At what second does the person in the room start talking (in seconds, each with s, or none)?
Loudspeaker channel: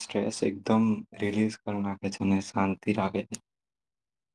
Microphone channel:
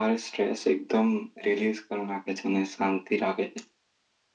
none